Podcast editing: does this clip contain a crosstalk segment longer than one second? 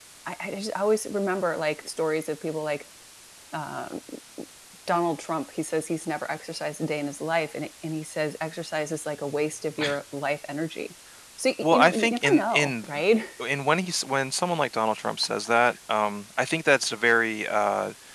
Yes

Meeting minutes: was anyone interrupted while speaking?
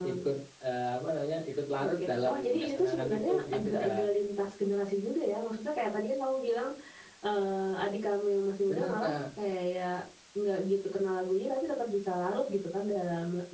Yes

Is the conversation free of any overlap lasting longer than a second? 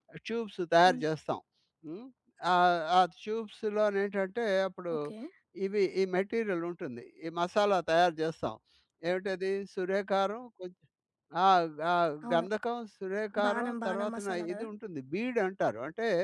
No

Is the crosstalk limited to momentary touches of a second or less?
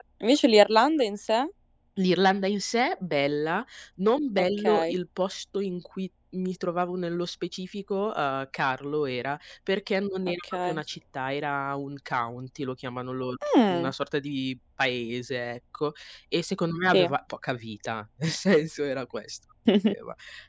Yes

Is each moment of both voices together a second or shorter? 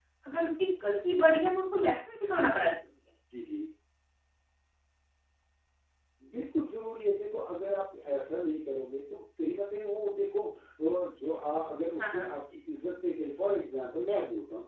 Yes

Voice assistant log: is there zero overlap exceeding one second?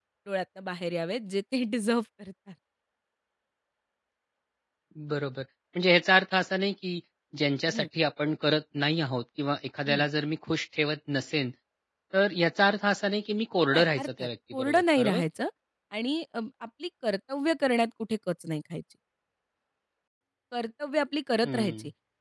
No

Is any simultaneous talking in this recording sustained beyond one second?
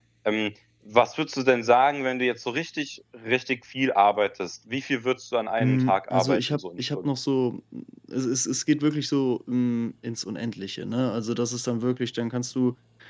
Yes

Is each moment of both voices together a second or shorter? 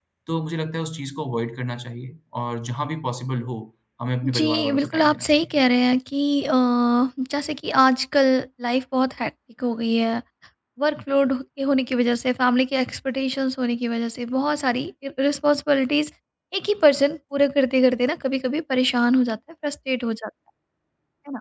No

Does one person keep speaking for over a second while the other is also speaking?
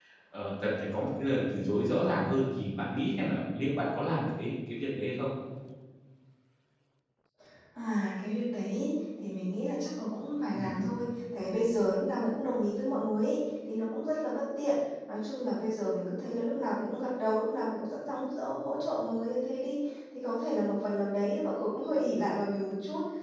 No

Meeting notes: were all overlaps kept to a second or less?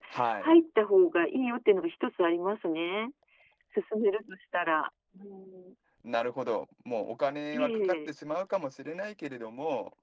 Yes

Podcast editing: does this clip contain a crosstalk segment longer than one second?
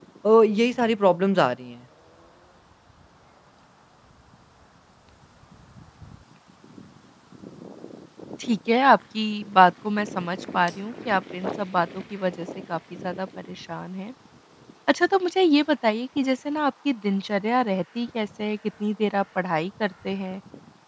No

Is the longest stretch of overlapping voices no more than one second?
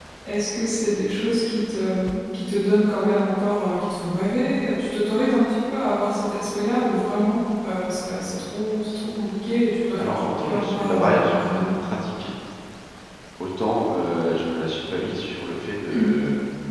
No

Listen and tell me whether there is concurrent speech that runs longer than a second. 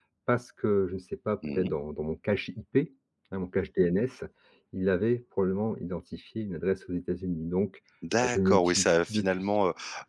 Yes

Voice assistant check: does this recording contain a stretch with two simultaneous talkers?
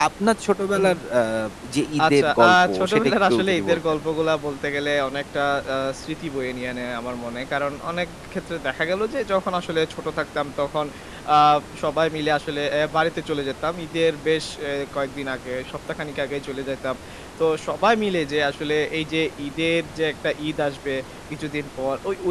Yes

